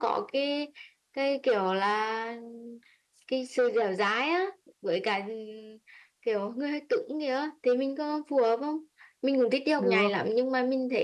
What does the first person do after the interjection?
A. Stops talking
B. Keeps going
B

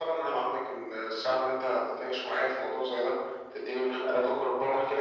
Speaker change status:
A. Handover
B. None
B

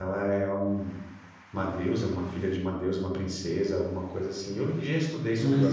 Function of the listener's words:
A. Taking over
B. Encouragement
A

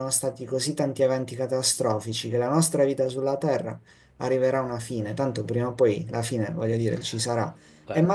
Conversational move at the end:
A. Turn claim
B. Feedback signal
B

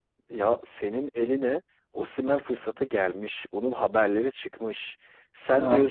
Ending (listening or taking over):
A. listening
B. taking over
A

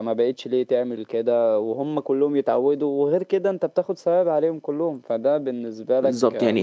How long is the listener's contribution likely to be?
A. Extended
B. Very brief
A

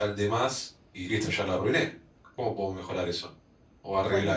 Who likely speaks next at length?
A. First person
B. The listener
B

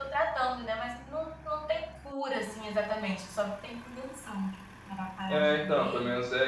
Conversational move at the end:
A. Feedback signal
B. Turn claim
B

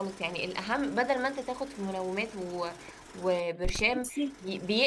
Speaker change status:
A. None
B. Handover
A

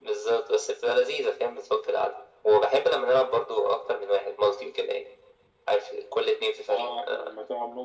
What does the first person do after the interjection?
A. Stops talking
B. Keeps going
A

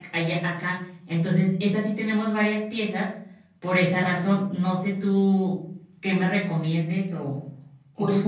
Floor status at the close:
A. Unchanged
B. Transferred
B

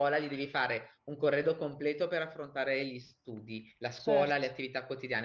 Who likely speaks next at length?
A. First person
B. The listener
A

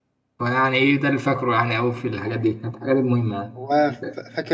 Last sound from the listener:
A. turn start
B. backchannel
A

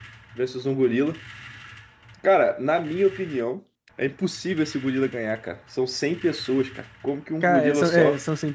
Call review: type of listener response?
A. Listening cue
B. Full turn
B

